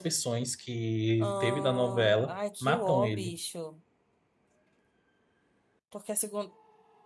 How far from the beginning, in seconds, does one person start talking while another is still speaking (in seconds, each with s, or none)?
1.2 s